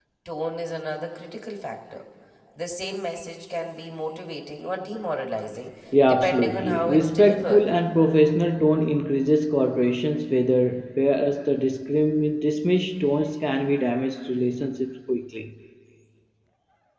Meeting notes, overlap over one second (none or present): present